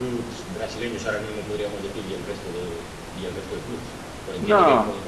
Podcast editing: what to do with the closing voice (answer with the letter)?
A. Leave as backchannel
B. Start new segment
A